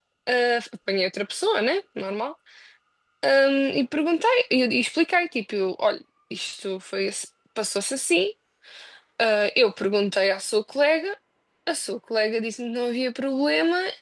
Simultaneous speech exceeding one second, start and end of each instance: none

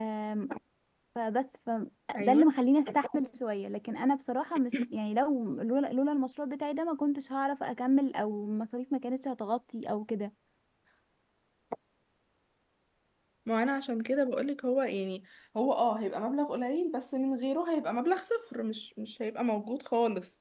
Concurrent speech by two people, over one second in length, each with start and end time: none

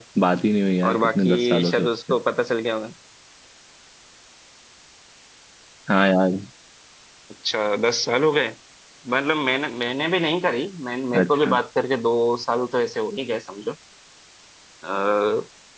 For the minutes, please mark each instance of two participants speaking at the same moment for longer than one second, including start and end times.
0.9-2.1

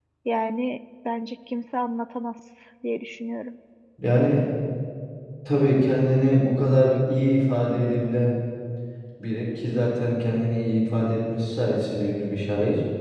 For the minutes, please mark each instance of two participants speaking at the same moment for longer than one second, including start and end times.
none

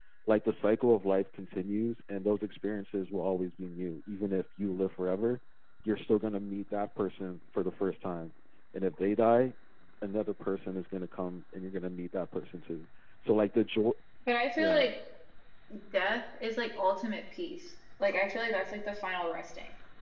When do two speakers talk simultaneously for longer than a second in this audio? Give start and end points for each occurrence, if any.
none

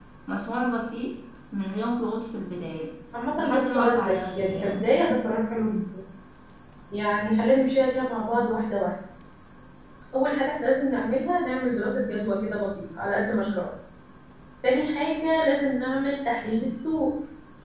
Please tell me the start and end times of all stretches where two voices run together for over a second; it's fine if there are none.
3.4-4.9

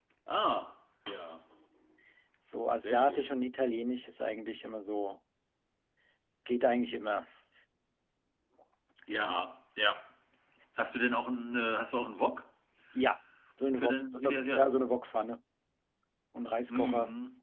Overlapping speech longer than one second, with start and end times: 13.8-15.0

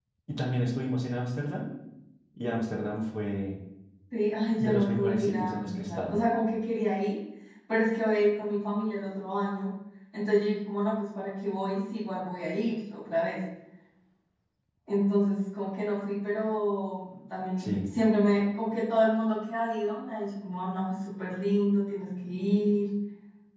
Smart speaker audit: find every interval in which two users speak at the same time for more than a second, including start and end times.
4.6-6.2

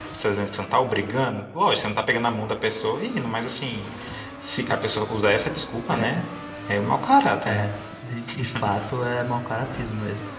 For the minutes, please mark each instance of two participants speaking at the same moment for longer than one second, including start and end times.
none

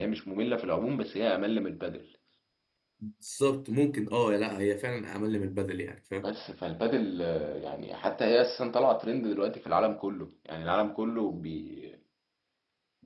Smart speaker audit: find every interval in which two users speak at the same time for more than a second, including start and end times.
none

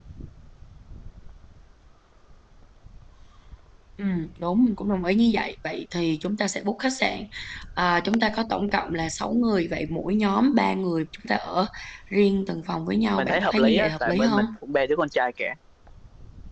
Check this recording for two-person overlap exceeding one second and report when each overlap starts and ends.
13.2-14.4

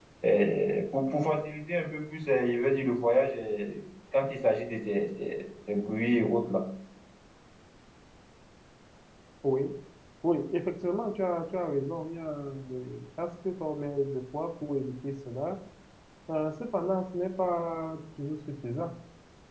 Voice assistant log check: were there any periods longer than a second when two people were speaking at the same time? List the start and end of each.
none

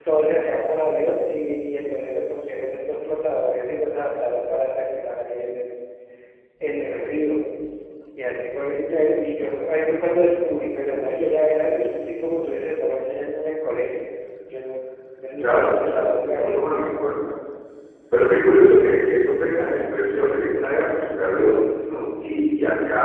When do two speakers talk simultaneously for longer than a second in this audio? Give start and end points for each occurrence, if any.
15.4-16.7

